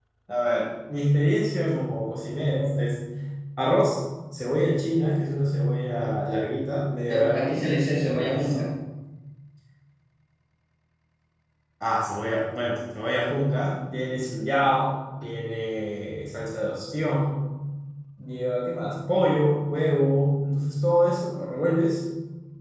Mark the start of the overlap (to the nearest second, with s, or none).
7 s